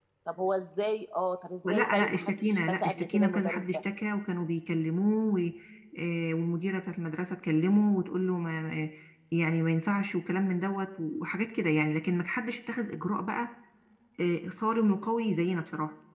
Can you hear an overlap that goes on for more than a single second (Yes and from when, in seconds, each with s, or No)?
Yes, from 1.6 s